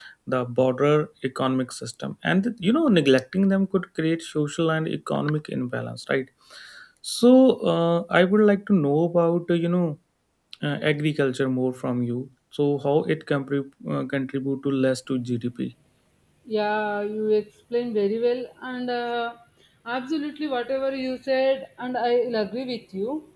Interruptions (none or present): none